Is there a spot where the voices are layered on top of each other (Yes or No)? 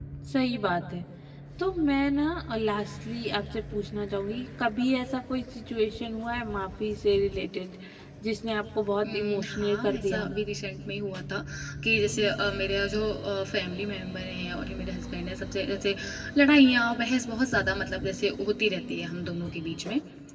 Yes